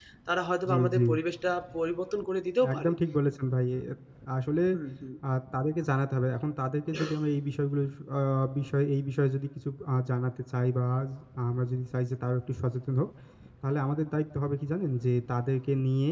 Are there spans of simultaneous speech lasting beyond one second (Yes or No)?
No